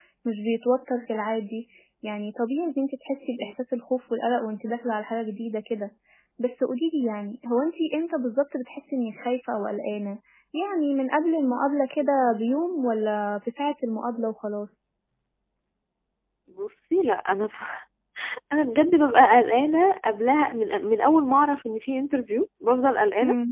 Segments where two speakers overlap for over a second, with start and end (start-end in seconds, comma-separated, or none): none